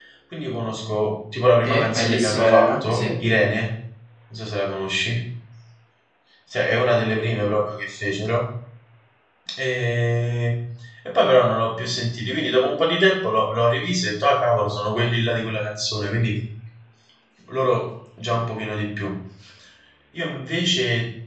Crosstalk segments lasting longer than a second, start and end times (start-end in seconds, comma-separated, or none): 1.6-3.1